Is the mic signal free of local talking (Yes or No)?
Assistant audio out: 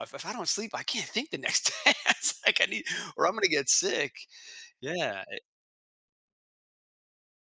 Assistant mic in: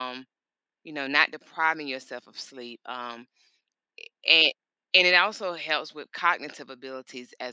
No